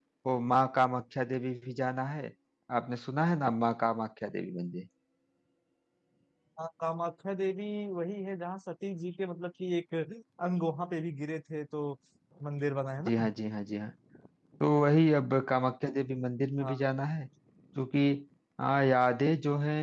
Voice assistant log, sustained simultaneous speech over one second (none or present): none